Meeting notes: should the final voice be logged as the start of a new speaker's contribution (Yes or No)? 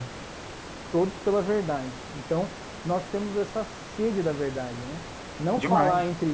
No